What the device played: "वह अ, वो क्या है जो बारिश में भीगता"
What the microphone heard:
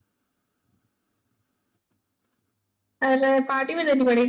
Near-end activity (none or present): present